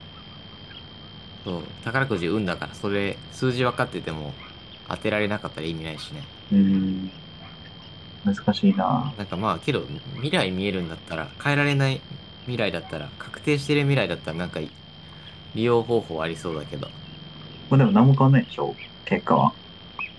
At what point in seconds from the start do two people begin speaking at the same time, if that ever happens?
none

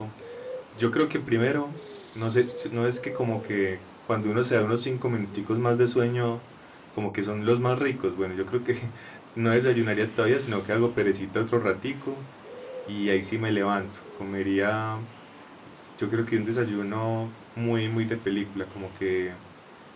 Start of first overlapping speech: none

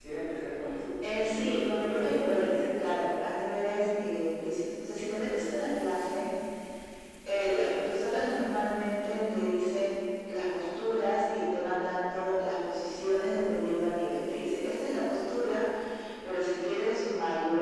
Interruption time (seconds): 1.1 s

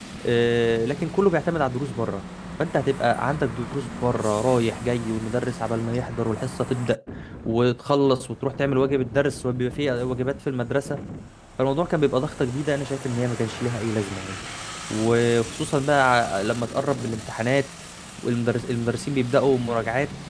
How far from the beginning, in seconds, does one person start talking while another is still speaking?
none

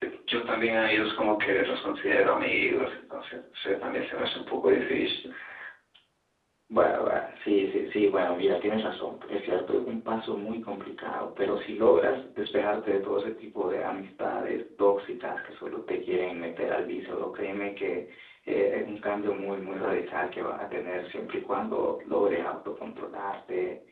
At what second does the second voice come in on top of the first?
none

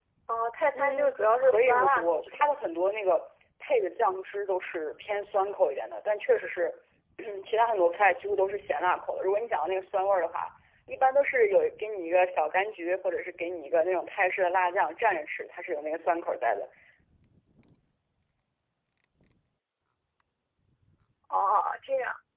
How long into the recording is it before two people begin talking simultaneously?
0.7 s

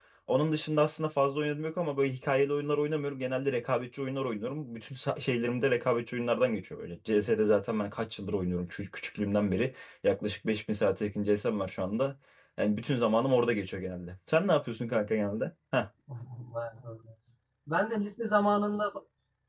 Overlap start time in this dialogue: none

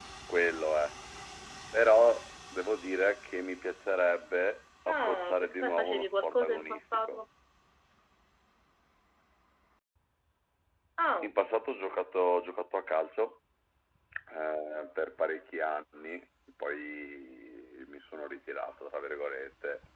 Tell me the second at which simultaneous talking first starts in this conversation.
4.9 s

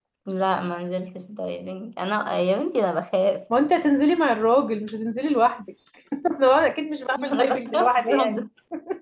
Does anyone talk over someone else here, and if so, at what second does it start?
7.2 s

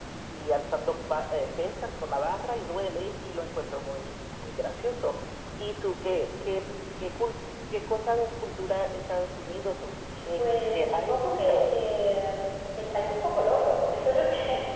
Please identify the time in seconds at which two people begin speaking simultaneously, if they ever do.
10.4 s

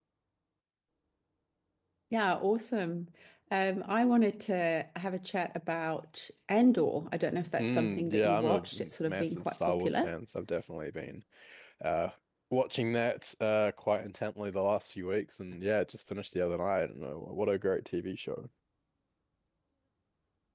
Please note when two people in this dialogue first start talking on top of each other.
7.6 s

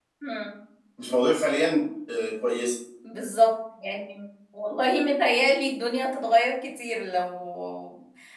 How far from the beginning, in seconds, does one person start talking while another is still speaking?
none

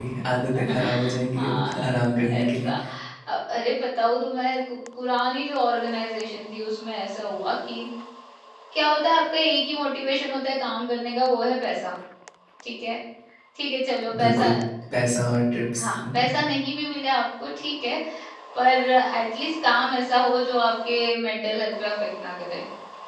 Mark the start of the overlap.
0.7 s

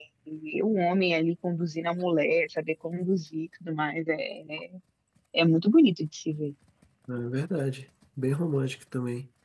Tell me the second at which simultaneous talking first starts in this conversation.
none

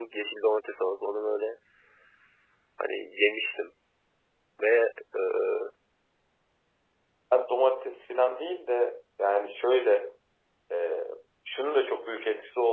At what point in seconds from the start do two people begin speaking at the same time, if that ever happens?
none

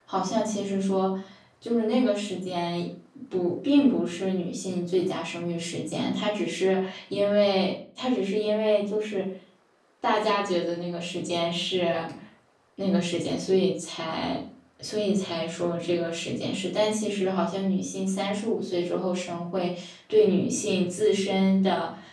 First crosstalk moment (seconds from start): none

